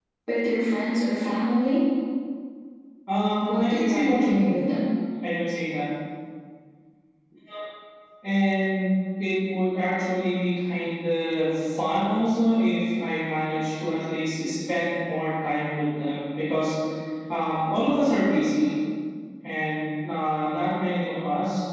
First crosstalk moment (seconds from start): 3.4 s

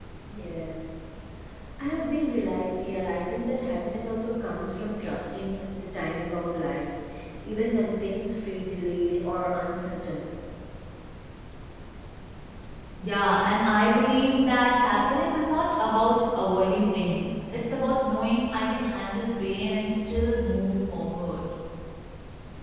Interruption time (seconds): none

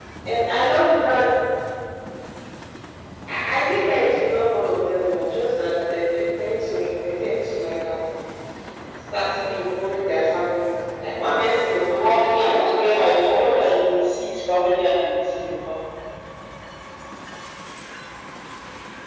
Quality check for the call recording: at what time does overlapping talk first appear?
11.9 s

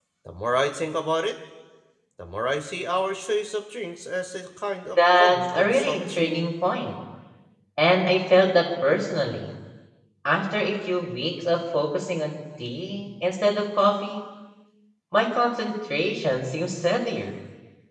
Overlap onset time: 5.0 s

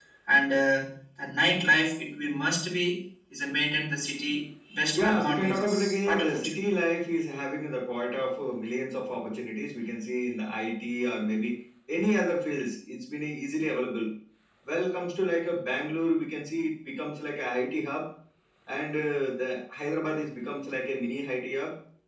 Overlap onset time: 4.9 s

